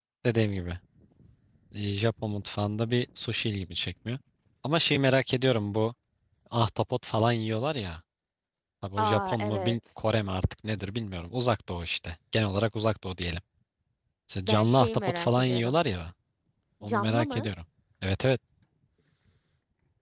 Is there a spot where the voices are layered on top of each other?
Yes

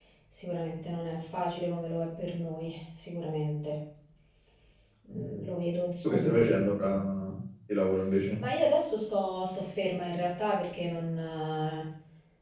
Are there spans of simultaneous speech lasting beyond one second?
No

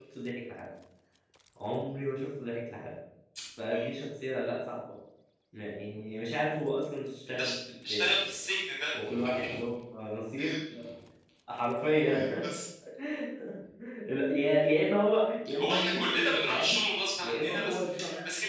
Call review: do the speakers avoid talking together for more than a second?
No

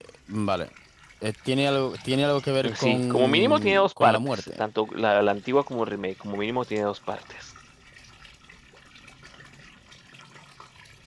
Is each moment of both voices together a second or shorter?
No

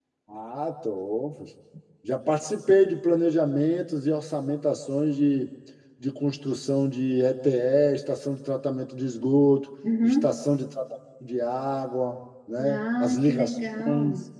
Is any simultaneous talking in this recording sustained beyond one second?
Yes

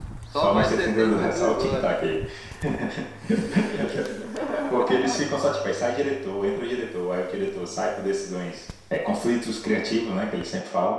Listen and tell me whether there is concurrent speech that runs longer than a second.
Yes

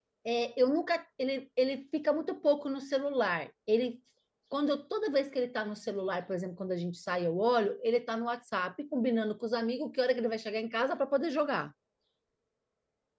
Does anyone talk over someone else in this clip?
No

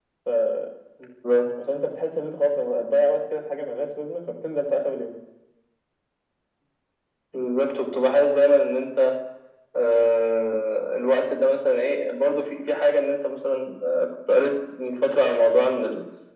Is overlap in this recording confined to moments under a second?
Yes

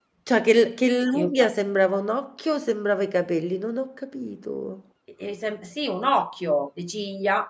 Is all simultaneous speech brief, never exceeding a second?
Yes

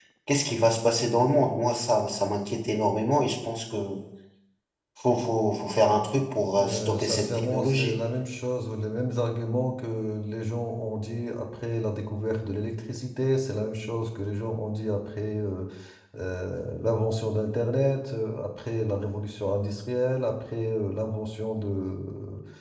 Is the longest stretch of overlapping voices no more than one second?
No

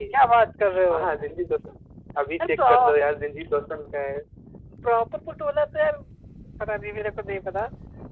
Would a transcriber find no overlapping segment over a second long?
Yes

